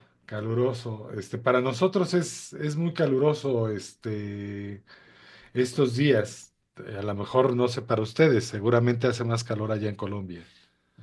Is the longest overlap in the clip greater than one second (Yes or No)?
No